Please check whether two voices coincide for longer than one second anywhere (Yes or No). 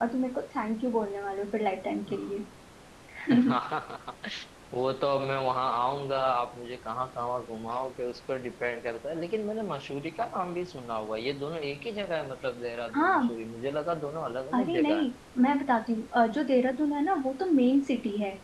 No